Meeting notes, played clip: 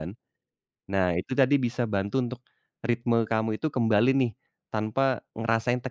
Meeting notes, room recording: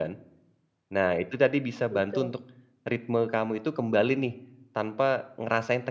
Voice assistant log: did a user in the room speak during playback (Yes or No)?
Yes